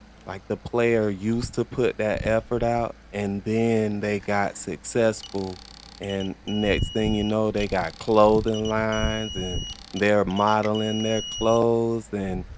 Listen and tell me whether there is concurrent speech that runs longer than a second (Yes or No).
No